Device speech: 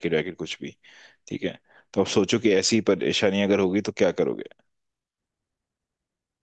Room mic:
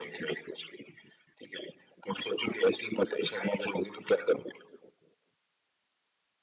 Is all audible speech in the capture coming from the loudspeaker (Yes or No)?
Yes